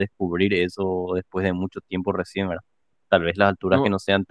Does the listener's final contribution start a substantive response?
No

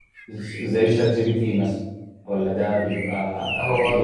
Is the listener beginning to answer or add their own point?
No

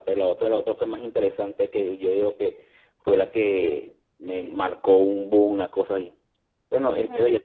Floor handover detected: No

